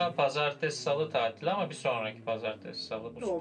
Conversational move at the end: taking over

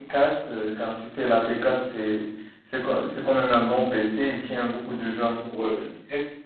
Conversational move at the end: taking over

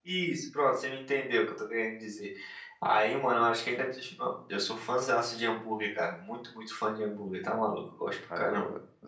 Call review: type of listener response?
taking over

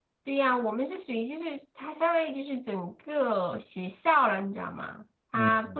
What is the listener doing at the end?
listening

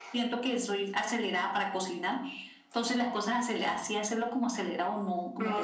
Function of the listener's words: listening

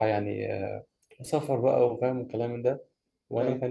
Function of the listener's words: listening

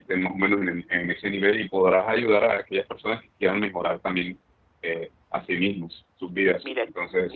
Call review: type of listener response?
taking over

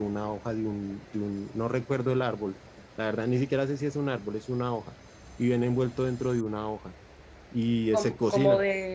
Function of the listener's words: taking over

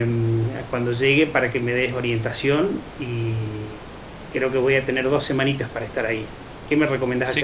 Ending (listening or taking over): taking over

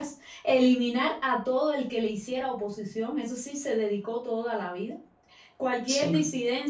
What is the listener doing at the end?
listening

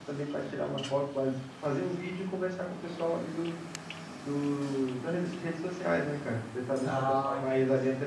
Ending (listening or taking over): listening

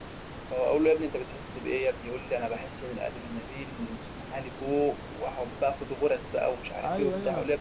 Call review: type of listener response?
taking over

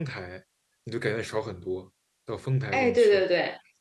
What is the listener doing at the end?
taking over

